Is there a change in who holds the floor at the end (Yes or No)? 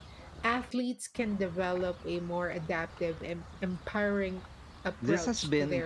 Yes